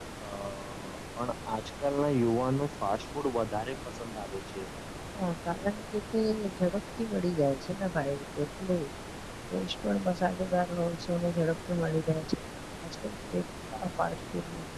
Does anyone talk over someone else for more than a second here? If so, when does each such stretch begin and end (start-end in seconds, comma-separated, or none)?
none